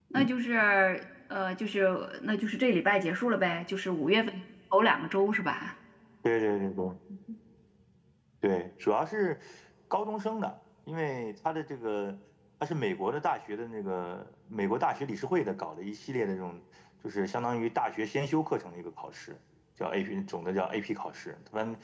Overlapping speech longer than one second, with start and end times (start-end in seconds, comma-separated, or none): none